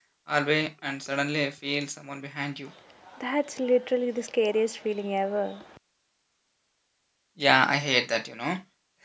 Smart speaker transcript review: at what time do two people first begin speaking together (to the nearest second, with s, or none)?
none